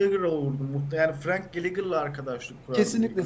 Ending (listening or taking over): taking over